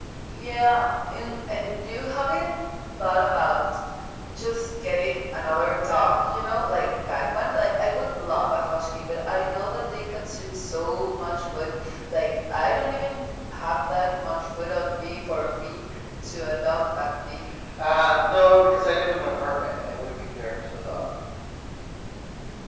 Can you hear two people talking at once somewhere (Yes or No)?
No